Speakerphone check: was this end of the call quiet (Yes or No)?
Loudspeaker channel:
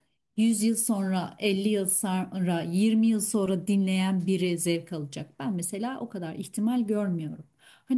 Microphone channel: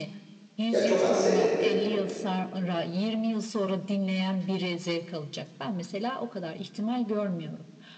No